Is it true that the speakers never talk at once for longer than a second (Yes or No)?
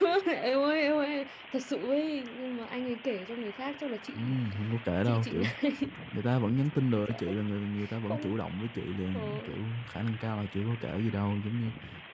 Yes